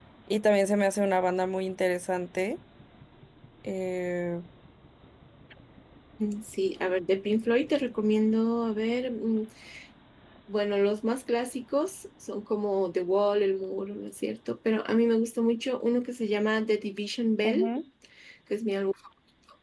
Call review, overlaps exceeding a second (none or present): none